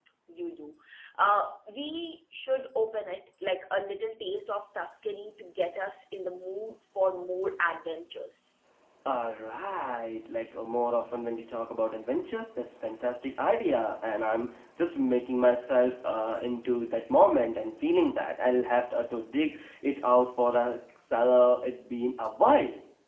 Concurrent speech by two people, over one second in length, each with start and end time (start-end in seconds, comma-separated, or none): none